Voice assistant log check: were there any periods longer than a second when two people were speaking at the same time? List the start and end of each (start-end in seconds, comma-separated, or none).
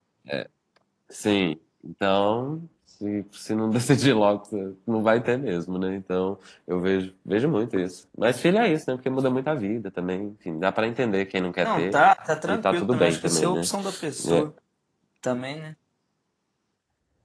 12.5-13.7